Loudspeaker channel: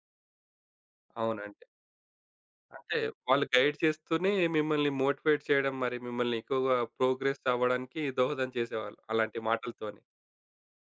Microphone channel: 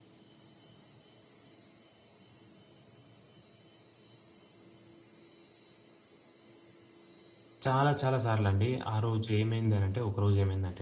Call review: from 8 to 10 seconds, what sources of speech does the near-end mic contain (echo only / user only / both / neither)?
user only